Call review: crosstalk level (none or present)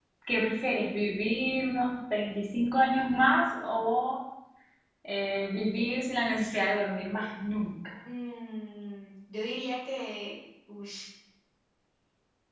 none